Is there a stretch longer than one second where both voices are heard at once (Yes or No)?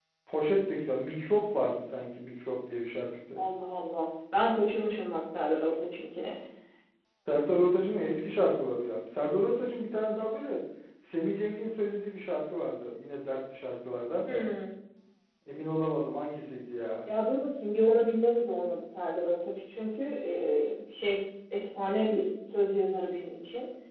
No